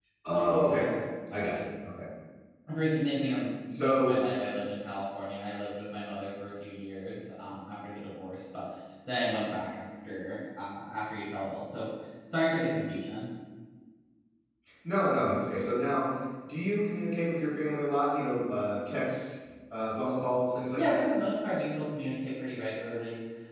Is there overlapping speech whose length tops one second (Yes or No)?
No